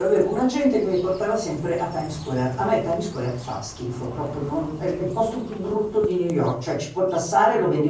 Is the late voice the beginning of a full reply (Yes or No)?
No